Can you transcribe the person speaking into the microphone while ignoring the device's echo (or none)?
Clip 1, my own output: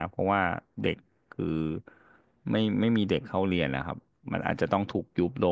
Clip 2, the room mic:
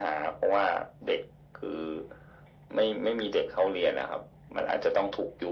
none